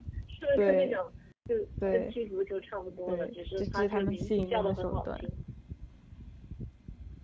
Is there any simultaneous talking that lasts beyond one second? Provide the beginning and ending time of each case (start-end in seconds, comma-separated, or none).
3.1-5.3